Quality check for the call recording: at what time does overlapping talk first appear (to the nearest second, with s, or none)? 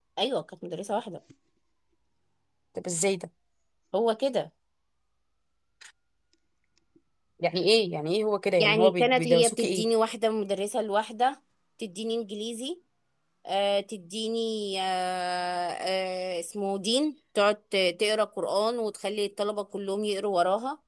9 s